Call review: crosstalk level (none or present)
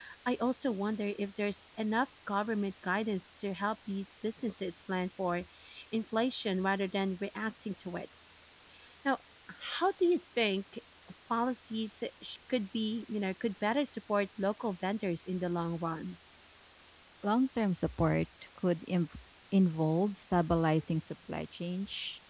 none